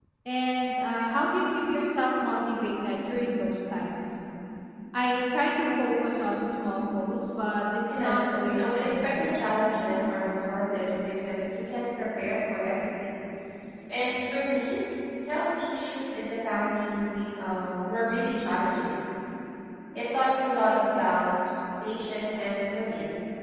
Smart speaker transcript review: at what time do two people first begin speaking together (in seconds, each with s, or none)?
7.9 s